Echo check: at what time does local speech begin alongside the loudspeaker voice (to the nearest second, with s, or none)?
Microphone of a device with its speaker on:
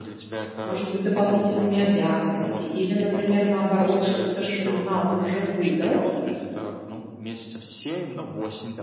1 s